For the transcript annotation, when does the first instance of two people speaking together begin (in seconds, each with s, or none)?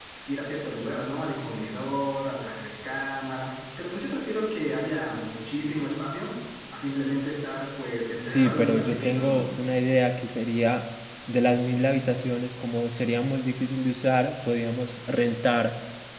8.2 s